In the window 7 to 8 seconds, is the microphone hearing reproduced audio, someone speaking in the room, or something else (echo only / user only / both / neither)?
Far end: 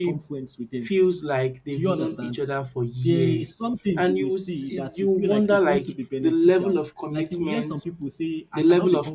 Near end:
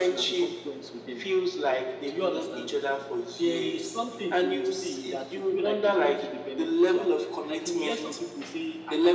echo only